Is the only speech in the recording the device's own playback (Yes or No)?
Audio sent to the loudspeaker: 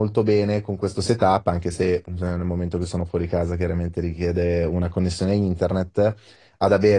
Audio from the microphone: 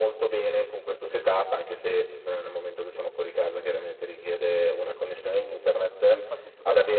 No